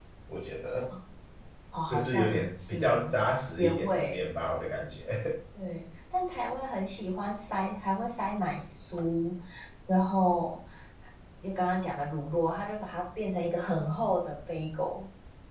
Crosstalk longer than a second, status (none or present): present